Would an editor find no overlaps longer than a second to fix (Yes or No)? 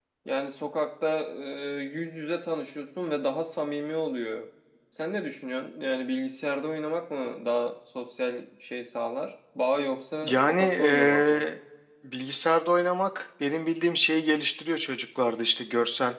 No